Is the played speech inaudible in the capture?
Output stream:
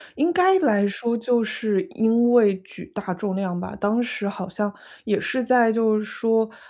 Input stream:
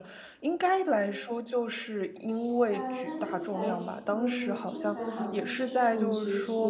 No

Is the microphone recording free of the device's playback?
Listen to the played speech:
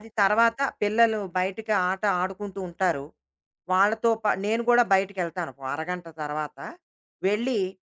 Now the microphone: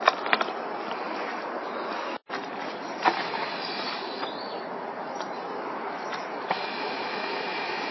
Yes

